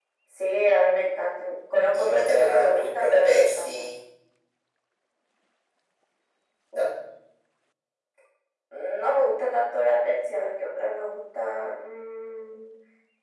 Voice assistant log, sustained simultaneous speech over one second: present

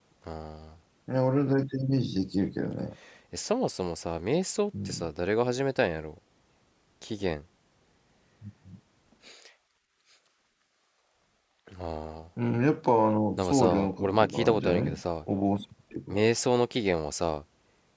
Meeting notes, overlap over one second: present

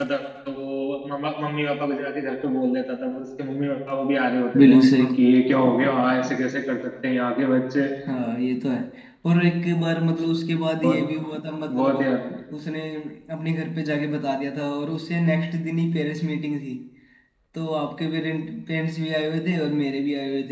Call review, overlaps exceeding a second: none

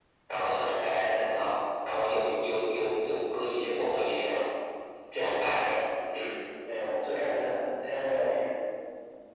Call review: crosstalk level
none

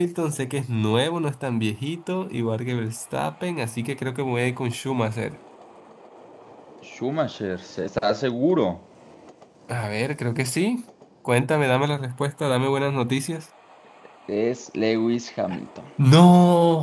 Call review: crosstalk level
none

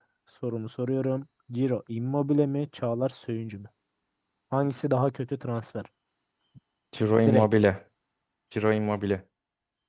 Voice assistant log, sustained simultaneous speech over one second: none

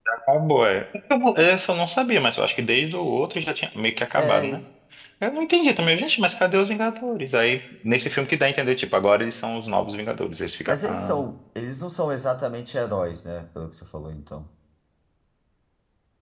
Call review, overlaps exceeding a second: none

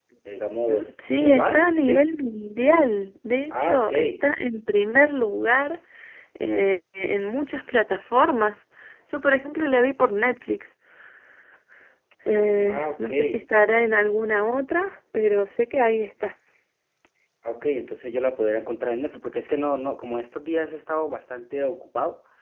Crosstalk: present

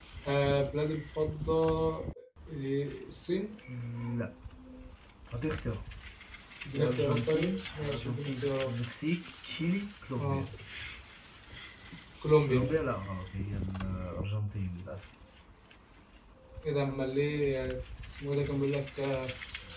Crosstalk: present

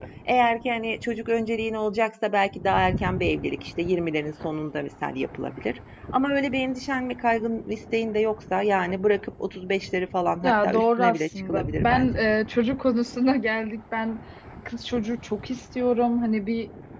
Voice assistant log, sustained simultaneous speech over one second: present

